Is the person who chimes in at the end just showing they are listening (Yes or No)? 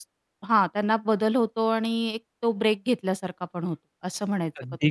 No